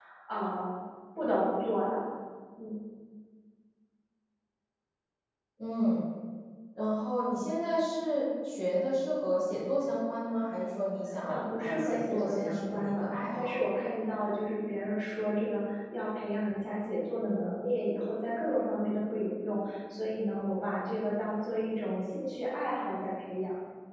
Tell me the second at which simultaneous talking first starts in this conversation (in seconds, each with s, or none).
11.3 s